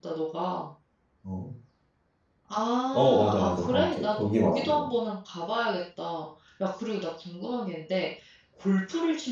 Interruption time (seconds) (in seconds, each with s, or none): 2.9 s